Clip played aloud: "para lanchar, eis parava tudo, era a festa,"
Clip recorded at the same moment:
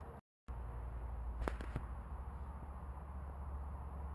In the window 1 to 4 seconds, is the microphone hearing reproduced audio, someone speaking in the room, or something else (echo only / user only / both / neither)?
neither